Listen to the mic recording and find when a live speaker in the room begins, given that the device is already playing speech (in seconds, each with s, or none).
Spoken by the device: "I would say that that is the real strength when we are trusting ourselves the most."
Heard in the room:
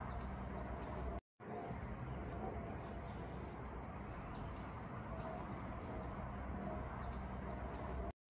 none